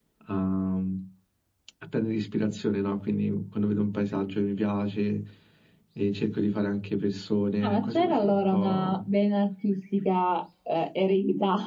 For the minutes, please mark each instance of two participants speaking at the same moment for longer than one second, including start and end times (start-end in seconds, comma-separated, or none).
7.6-9.0